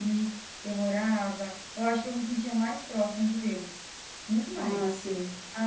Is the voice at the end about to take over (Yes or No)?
No